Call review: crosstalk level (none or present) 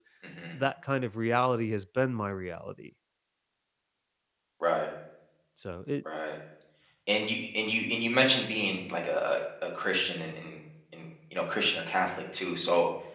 none